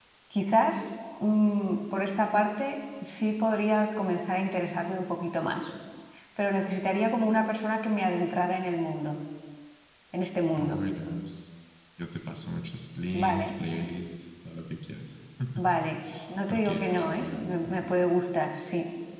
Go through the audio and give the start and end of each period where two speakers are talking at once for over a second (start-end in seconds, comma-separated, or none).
16.5-17.9